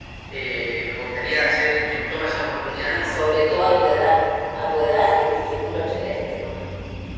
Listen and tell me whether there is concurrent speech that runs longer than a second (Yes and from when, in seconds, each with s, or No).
Yes, from 2.7 s